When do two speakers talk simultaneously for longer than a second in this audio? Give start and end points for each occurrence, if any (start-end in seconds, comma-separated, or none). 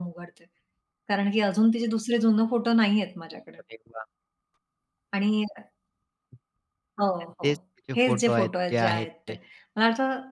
8.0-9.3